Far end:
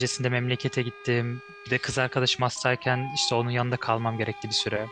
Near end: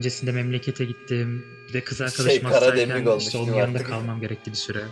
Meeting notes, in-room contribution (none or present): present